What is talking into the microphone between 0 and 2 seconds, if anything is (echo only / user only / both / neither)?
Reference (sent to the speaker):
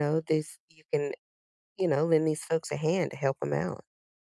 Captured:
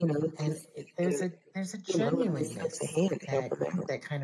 both